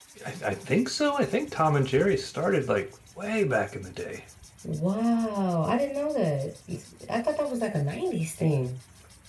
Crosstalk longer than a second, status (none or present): none